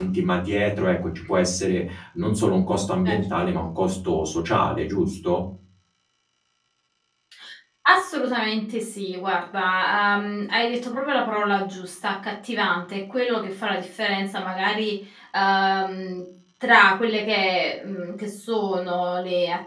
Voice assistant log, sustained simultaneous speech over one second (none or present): none